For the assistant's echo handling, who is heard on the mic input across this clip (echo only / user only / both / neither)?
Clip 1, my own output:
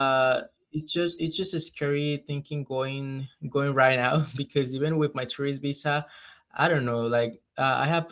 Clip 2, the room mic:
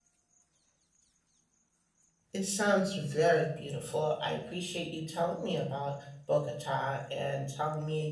user only